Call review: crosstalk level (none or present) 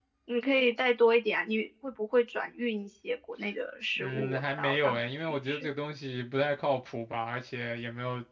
present